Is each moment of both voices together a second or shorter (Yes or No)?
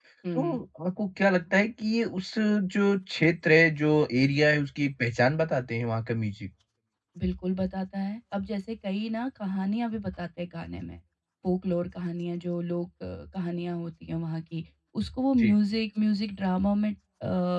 Yes